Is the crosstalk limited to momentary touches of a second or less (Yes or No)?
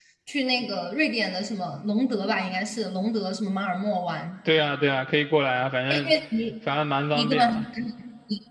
Yes